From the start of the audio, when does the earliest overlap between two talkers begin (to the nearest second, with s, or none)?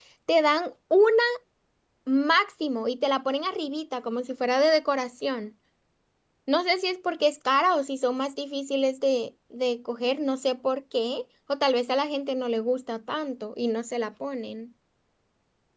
none